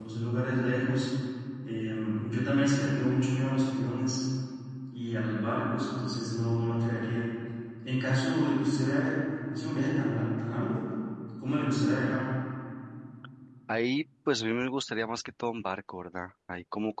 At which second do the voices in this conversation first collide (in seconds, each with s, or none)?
none